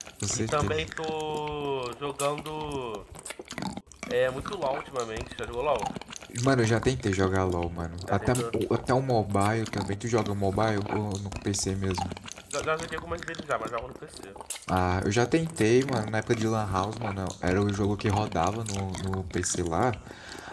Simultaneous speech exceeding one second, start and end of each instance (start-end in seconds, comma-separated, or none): none